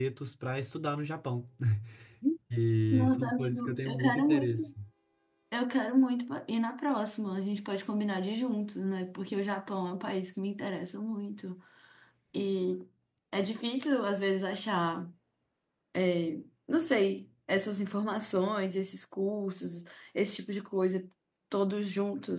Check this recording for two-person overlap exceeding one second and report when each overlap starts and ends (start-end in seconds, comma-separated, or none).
2.9-4.7